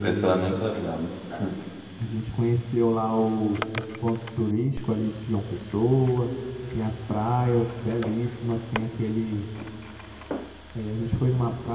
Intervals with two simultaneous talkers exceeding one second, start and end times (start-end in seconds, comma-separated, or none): none